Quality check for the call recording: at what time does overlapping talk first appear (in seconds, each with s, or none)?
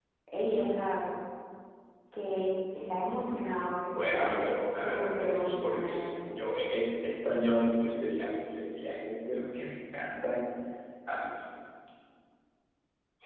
3.9 s